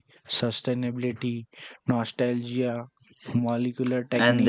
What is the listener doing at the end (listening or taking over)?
taking over